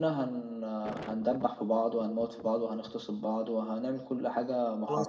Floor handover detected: Yes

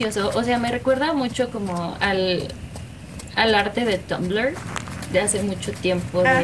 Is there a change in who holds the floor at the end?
No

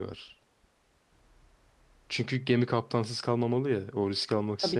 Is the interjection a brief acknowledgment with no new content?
Yes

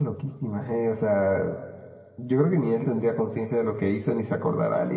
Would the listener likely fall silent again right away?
No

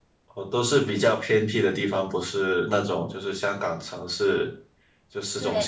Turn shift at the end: Yes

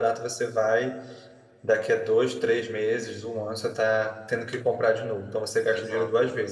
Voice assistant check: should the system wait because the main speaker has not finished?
Yes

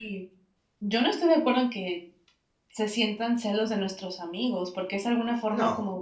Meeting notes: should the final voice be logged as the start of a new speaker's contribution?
No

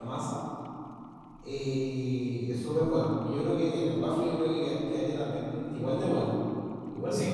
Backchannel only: No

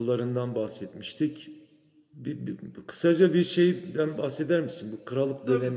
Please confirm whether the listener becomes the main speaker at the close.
No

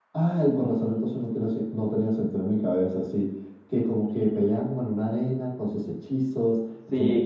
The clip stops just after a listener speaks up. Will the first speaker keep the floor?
No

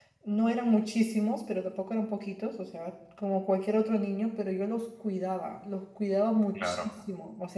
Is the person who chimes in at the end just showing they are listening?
Yes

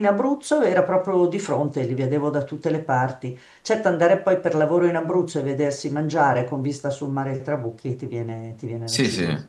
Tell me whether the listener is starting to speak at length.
Yes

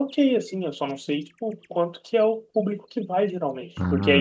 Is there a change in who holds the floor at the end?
Yes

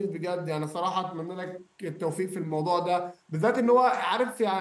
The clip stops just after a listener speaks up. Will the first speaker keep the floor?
Yes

